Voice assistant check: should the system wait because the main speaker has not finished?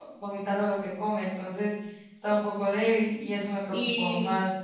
No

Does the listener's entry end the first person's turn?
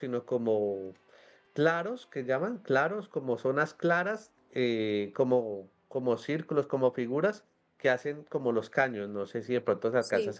No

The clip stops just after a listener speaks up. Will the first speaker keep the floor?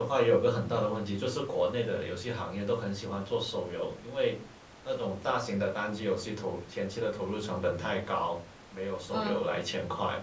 Yes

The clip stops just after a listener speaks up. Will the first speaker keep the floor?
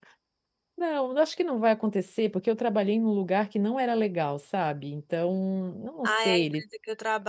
No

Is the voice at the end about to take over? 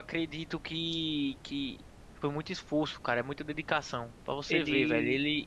No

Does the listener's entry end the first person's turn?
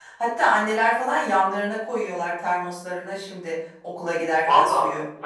Yes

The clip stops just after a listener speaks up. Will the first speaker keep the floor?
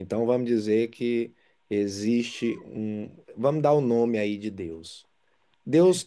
Yes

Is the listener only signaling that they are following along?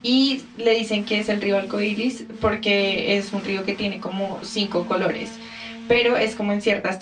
Yes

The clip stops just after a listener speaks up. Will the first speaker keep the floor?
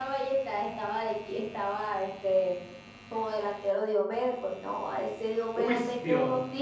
No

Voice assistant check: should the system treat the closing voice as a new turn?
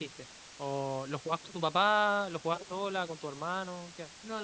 Yes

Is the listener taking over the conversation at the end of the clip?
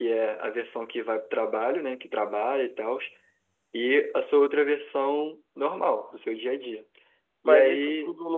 Yes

